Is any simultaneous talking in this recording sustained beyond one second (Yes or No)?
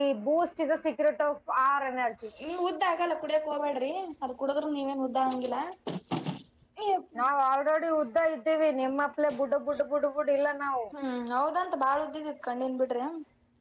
No